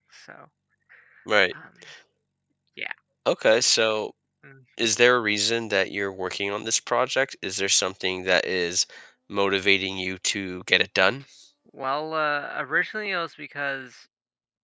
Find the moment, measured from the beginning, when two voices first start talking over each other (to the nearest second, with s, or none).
none